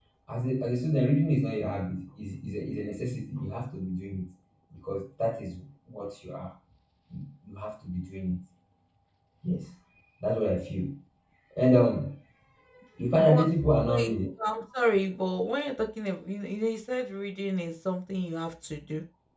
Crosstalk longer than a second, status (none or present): none